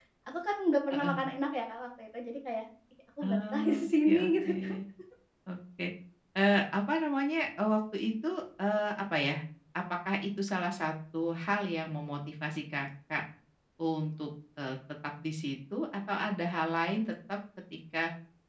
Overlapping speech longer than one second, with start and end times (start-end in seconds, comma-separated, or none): 3.2-4.5